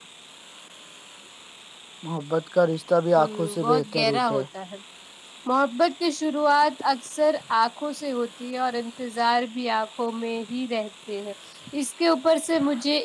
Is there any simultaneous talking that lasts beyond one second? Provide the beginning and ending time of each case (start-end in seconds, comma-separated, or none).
3.2-4.4